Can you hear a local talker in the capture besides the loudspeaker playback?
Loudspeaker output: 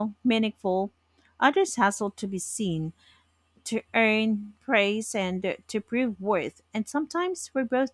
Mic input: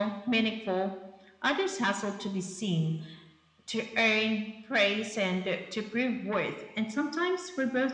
No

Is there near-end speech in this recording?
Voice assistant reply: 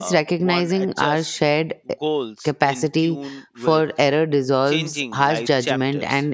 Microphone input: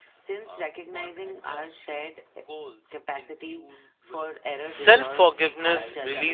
Yes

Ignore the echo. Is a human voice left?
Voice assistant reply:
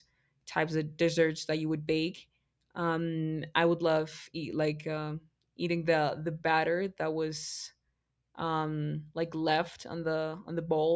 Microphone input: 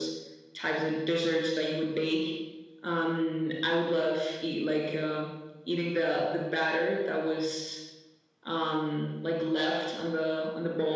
No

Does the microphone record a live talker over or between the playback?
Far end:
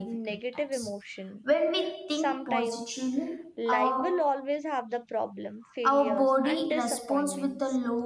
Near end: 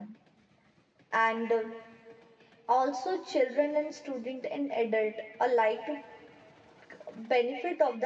Yes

